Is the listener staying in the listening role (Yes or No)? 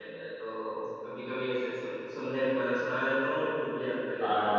No